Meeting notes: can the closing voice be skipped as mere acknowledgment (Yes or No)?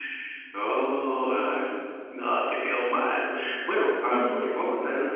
Yes